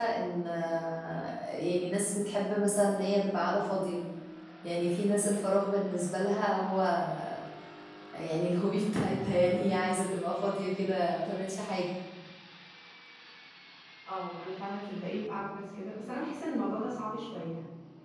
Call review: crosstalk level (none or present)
none